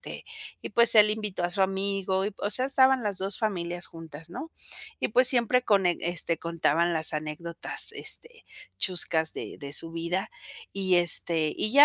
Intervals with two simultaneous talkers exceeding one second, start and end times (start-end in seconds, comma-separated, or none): none